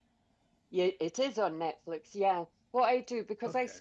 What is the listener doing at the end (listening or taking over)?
listening